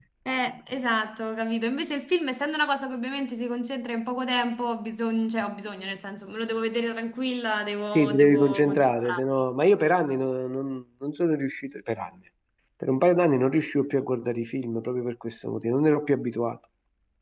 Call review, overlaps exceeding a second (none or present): present